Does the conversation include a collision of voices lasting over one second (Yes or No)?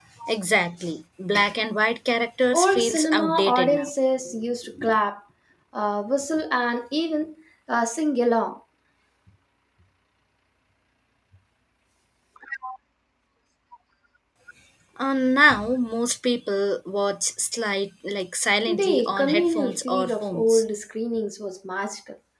Yes